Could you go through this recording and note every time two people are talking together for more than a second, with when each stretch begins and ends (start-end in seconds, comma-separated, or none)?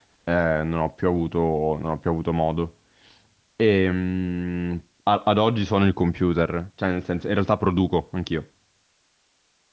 none